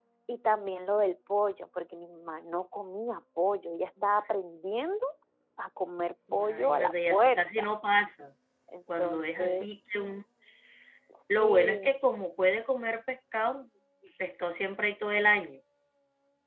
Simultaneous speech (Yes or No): Yes